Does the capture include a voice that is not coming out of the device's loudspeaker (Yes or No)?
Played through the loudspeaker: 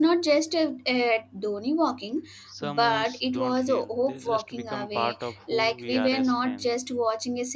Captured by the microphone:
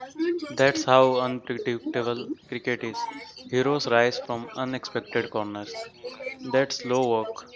Yes